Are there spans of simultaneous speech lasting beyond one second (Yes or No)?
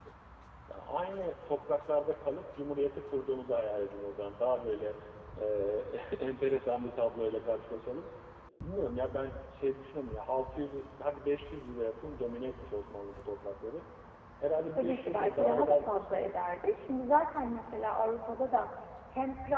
Yes